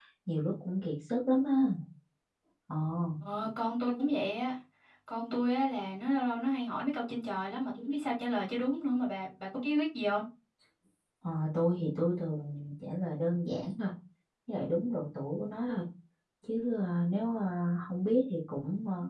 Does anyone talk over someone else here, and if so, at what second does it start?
none

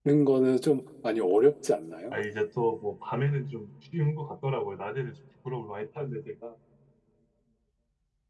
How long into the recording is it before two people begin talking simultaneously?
none

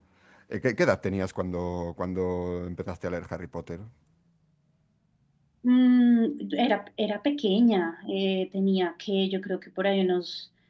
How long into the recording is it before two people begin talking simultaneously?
none

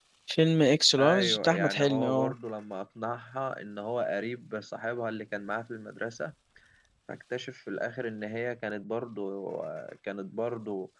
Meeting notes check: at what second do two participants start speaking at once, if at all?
1.0 s

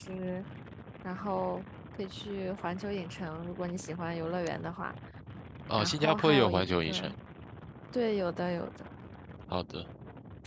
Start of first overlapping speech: 5.8 s

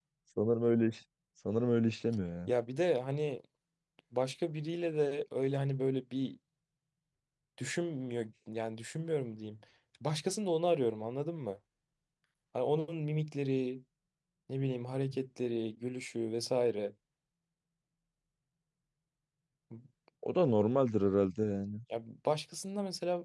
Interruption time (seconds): none

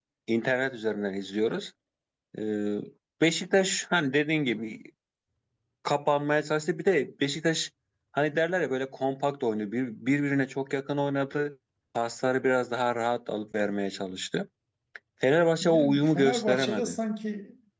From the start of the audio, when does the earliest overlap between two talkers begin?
15.6 s

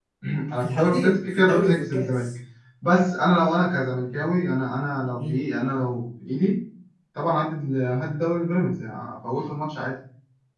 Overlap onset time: 0.6 s

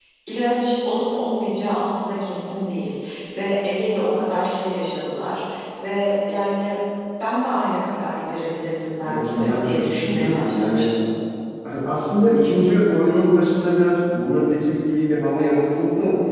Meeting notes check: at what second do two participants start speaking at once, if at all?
9.0 s

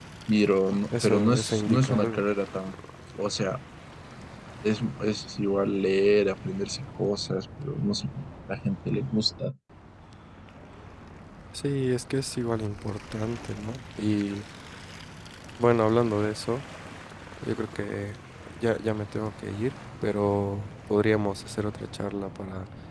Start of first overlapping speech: 0.9 s

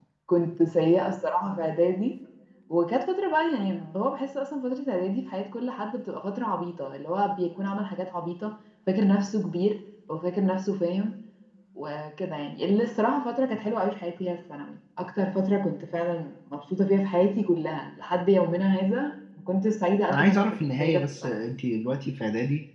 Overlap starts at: 20.1 s

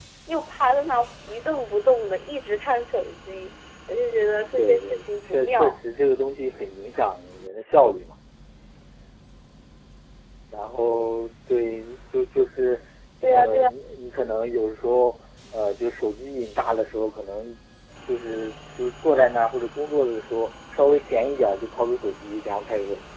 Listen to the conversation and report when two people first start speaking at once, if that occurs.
4.0 s

